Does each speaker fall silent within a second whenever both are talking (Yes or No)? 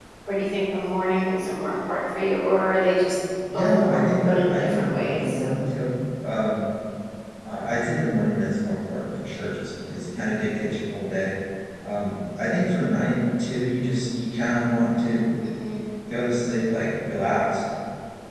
No